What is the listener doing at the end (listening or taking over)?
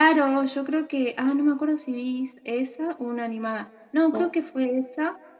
listening